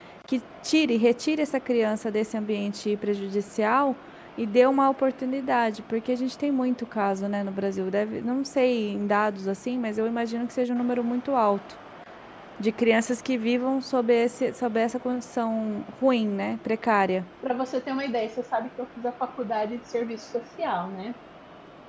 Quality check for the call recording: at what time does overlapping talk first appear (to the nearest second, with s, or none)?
none